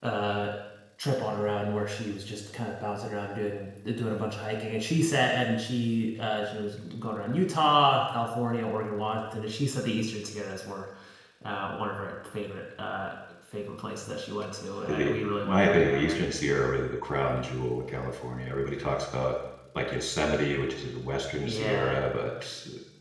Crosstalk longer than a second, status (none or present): present